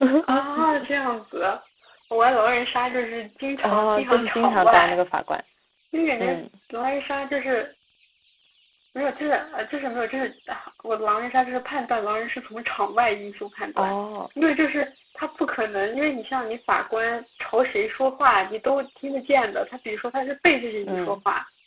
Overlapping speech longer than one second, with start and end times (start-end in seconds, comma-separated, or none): 3.6-5.0